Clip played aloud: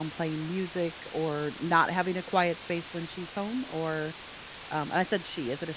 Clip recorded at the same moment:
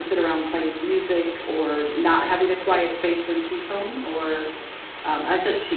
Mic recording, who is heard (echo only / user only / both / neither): echo only